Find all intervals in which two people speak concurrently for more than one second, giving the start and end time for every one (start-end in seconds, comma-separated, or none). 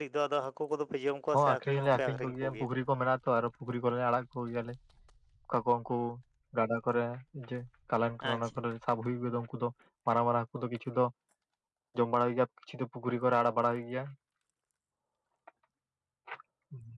1.4-2.7